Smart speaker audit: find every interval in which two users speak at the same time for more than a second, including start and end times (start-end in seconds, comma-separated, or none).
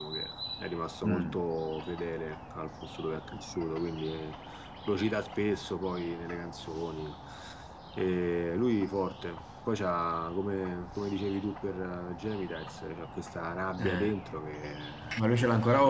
none